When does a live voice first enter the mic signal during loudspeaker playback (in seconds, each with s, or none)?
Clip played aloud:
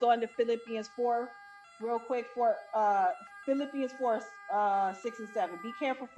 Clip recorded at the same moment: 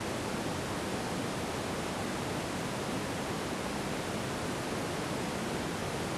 none